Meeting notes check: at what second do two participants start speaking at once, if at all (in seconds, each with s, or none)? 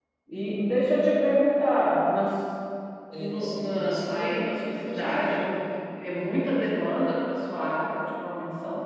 3.2 s